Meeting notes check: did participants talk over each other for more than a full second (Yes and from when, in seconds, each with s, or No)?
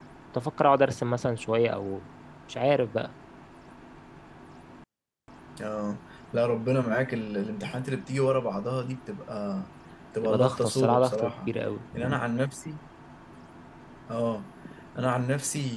Yes, from 10.2 s